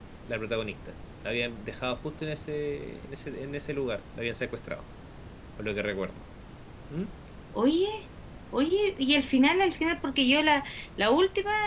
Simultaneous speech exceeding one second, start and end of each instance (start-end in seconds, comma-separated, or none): none